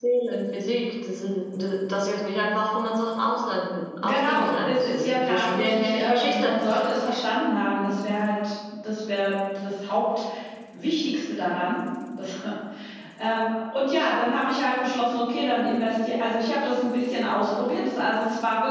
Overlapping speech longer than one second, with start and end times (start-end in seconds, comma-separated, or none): 4.0-6.6